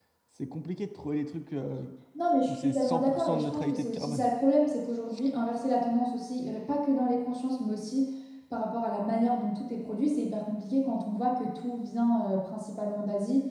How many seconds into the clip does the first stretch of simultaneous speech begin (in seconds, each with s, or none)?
2.5 s